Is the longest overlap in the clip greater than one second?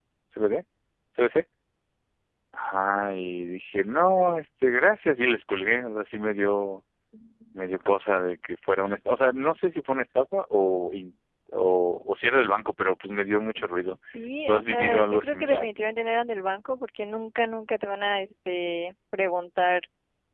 Yes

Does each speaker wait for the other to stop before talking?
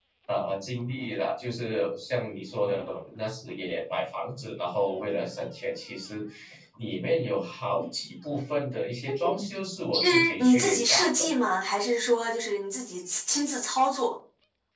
No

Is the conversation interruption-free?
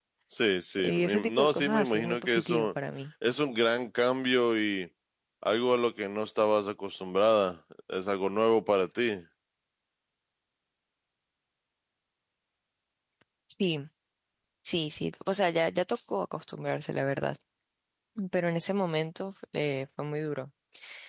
No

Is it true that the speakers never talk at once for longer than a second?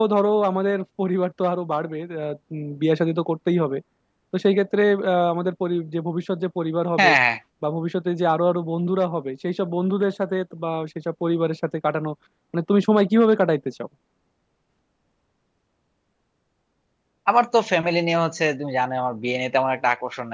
Yes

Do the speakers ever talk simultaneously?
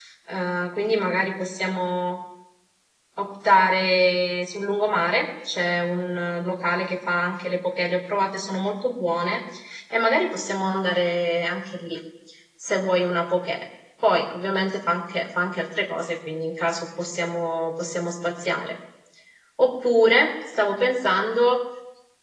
No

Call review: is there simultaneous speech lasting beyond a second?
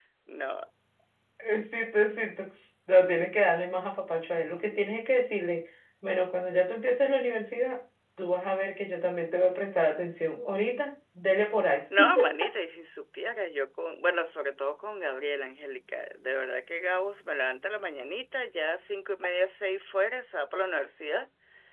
No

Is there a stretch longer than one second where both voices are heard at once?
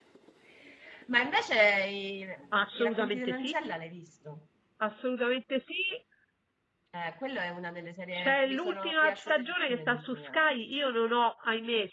Yes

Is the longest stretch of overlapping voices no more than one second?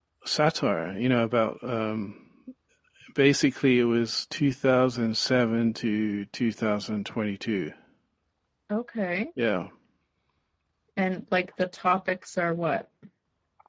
Yes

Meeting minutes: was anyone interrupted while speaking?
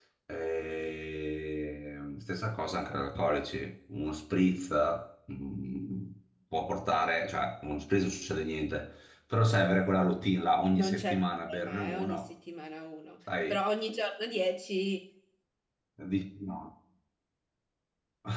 Yes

